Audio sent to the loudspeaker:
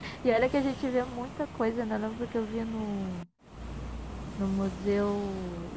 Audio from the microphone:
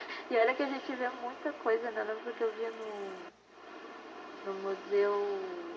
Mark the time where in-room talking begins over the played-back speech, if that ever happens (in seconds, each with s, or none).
none